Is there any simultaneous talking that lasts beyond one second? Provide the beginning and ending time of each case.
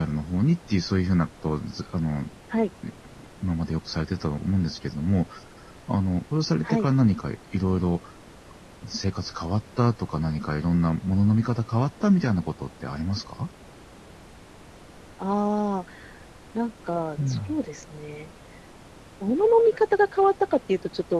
none

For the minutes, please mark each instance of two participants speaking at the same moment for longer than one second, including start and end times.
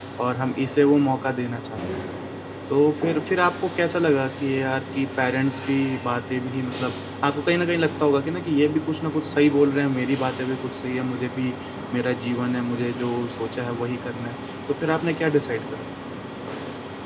none

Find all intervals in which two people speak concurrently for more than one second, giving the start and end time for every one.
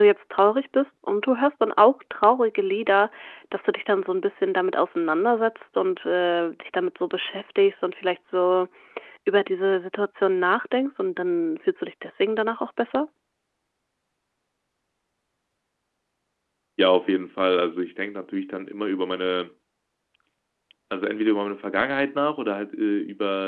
none

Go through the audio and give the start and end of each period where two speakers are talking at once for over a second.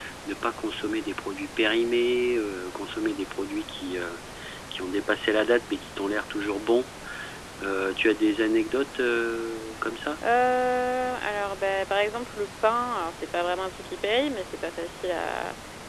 none

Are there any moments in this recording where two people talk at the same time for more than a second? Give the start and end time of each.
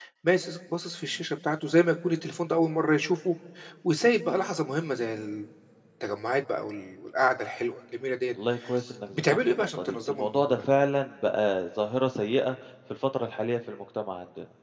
9.1-10.6

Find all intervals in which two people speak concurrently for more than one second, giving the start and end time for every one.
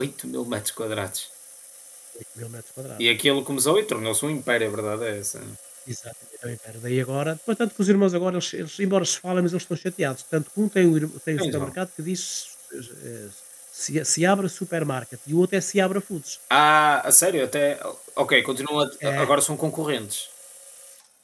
none

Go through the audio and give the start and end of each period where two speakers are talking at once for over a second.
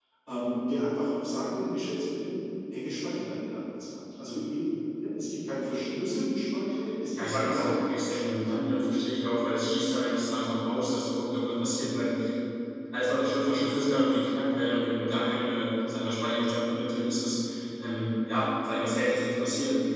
7.1-8.5

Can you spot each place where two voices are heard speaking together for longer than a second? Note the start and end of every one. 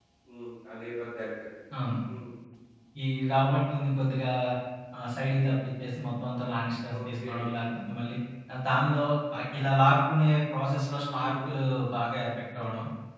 none

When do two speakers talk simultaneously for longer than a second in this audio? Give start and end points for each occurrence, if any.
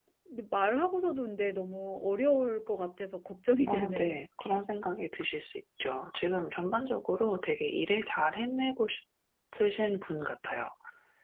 none

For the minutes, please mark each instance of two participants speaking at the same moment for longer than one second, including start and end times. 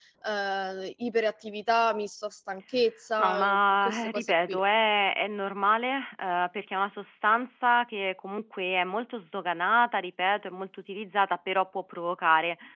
3.2-4.6

